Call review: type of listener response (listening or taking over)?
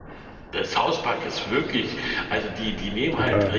listening